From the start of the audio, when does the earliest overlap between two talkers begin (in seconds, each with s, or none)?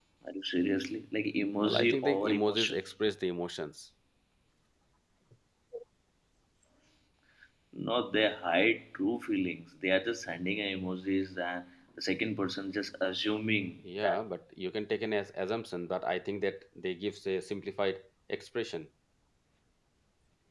1.6 s